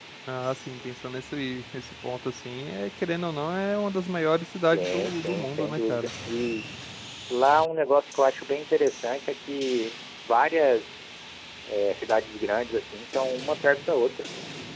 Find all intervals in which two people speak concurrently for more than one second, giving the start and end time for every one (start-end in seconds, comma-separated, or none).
4.7-6.1